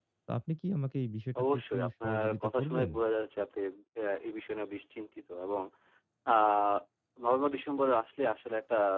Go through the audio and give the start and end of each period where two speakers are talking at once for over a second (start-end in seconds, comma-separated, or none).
1.4-2.9